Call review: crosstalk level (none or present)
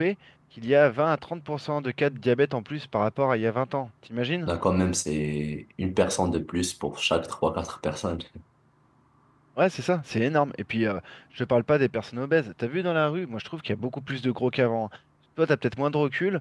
none